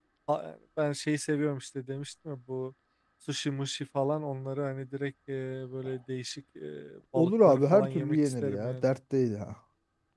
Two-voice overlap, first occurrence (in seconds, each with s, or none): 7.2 s